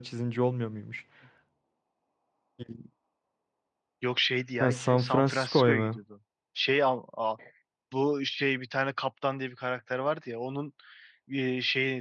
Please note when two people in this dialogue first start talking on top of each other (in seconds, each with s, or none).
4.6 s